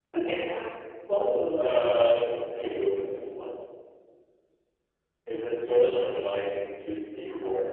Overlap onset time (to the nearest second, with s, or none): 2 s